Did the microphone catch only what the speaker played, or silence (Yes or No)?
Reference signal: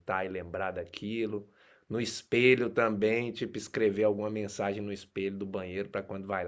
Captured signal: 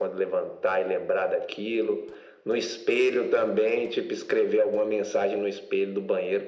Yes